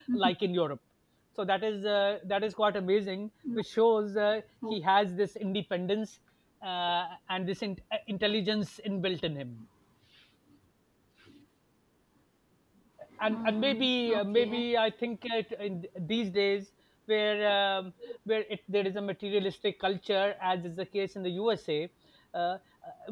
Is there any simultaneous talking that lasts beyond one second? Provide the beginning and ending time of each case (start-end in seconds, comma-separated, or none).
13.2-14.6